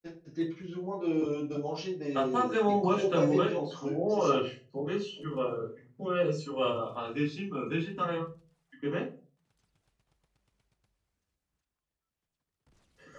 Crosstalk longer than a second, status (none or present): present